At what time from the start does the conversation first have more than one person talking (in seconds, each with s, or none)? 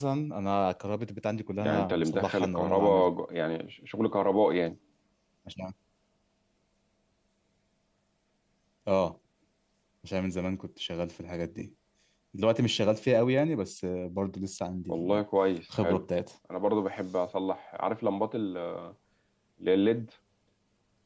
1.6 s